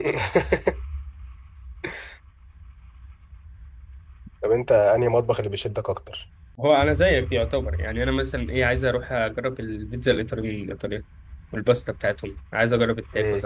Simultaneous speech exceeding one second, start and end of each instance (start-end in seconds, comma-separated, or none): none